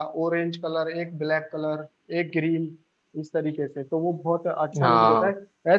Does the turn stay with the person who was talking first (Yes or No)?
Yes